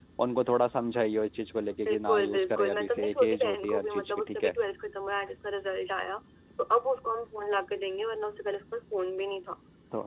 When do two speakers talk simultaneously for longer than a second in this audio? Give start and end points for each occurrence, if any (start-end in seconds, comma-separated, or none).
1.9-4.5